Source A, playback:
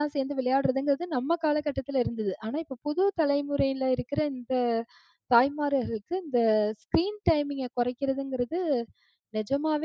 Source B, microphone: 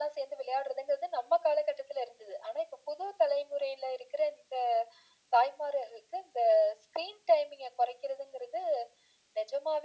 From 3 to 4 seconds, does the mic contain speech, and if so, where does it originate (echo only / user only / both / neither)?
echo only